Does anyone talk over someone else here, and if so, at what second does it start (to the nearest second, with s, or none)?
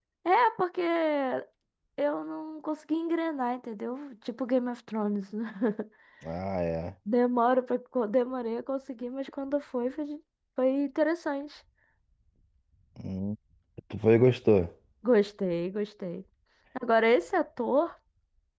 none